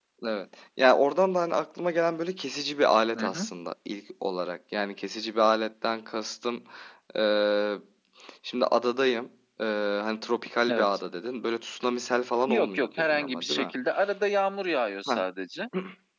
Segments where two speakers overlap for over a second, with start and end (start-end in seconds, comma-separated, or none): 12.5-13.7